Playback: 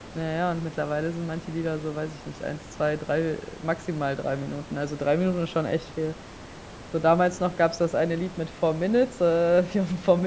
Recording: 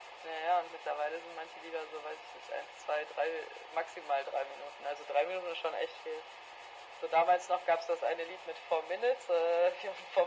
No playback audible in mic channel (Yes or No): No